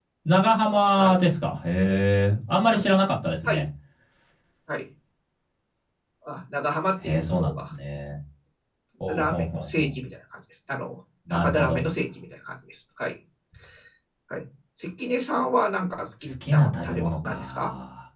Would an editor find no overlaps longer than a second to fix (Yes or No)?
No